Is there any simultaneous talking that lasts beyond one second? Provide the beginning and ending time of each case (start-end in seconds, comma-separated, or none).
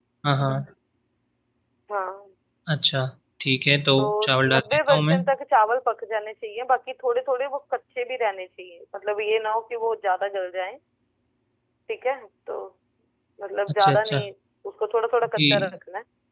4.0-5.2